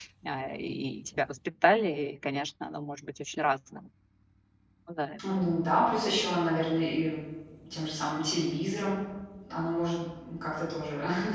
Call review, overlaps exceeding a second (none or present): none